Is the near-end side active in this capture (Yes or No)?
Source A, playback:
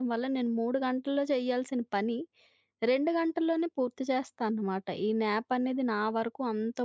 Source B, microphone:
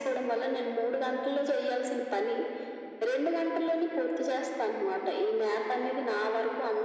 No